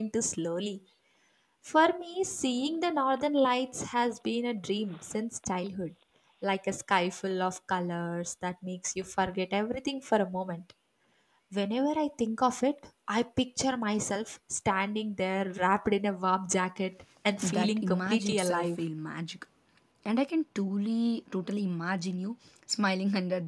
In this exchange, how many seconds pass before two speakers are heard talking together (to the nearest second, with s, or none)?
17 s